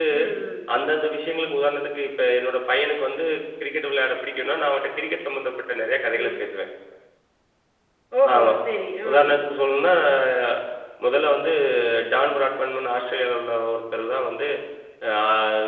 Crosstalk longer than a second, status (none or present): none